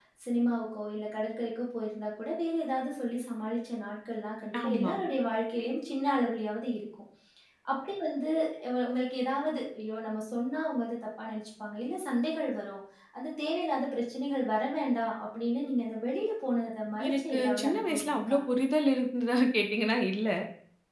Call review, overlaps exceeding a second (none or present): present